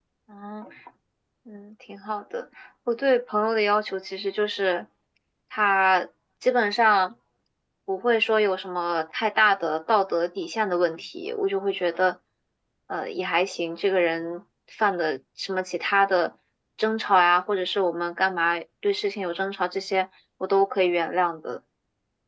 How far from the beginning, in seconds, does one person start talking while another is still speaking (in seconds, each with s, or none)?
none